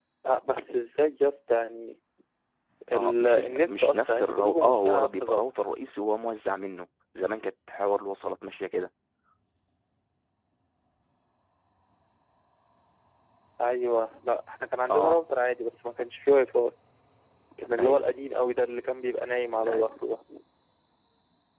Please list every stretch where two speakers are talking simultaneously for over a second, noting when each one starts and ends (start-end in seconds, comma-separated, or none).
3.0-5.4